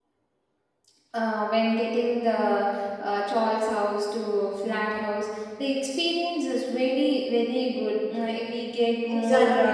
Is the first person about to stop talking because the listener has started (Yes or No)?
Yes